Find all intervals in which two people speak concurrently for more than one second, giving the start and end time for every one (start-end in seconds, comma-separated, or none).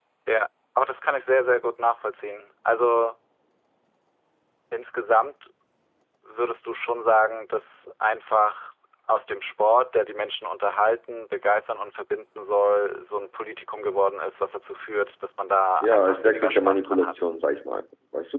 15.8-17.2